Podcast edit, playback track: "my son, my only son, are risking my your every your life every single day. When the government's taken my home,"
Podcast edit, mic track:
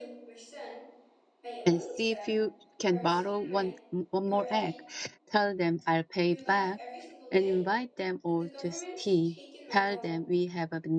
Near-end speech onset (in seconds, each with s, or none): 1.6 s